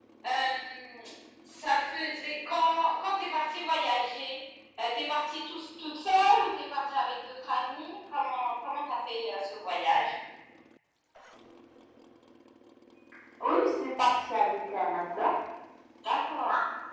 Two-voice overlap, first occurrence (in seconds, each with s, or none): none